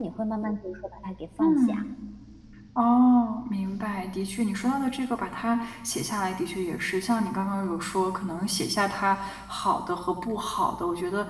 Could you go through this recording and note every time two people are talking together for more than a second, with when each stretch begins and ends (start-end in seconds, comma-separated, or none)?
none